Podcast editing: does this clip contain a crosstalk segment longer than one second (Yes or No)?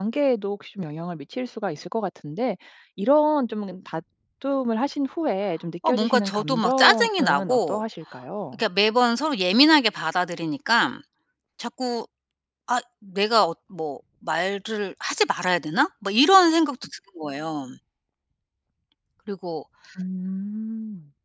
Yes